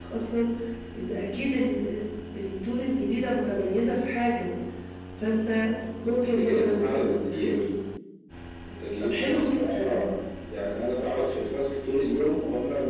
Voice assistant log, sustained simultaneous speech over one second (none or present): present